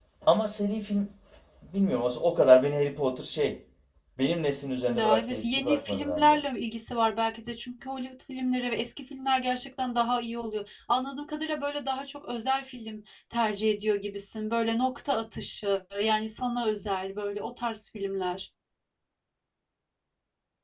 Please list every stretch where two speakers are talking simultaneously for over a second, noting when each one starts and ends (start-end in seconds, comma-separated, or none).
4.9-6.4